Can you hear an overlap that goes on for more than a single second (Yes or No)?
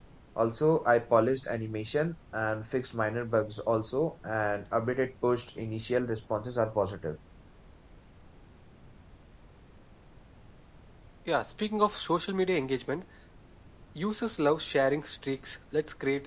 No